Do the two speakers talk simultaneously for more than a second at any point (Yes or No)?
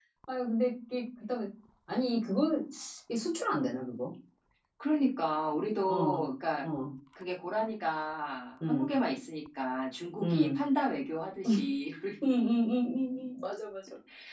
No